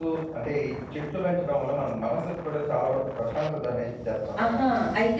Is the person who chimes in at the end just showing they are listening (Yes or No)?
No